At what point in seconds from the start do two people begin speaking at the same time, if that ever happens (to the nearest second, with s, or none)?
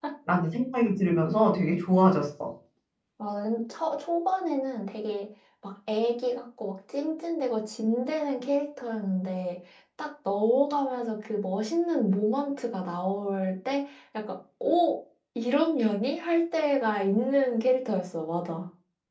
none